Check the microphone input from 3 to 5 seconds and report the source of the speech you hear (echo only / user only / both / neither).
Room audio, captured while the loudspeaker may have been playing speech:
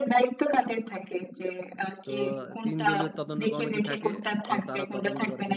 both